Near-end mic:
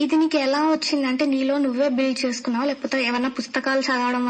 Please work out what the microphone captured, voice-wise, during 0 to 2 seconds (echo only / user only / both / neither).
echo only